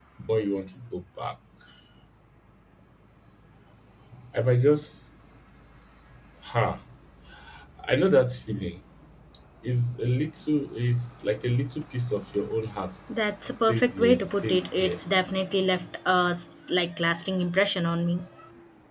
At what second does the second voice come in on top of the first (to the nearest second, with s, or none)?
13 s